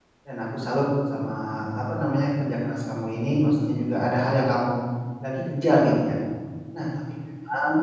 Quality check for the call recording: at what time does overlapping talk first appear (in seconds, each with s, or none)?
none